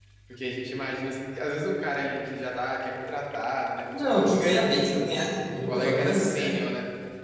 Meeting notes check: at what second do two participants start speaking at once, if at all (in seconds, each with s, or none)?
3.9 s